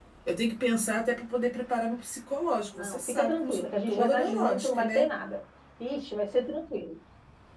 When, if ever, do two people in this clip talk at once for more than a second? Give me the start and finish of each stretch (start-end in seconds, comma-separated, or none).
2.8-5.0